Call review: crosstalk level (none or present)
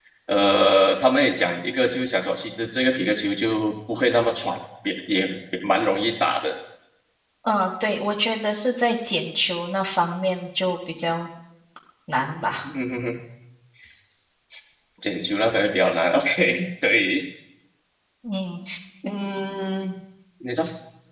none